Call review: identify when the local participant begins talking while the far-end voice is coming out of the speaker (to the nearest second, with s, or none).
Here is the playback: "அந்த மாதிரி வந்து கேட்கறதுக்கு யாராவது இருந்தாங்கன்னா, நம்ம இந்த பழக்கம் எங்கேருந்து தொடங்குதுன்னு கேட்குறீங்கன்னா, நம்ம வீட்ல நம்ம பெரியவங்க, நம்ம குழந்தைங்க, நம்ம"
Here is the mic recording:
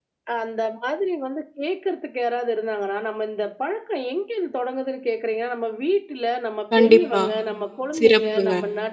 7 s